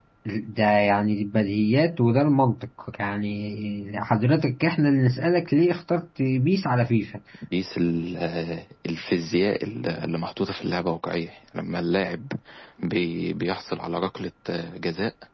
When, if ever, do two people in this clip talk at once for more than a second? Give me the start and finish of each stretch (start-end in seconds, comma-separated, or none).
none